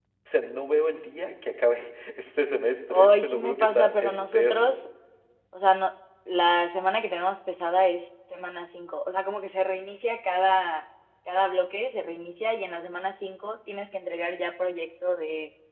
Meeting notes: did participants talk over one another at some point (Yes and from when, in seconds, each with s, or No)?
Yes, from 2.9 s